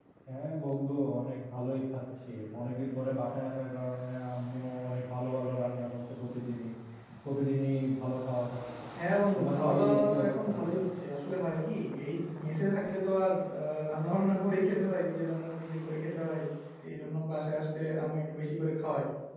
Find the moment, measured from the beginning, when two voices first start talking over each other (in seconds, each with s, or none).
9.3 s